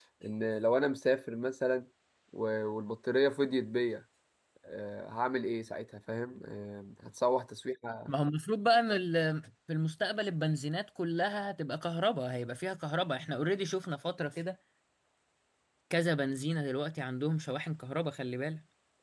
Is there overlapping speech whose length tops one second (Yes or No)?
No